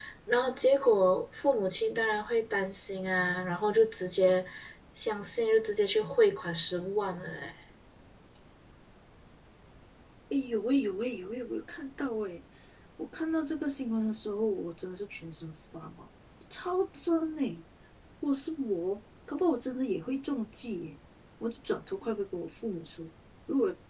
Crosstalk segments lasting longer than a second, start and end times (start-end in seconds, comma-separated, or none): none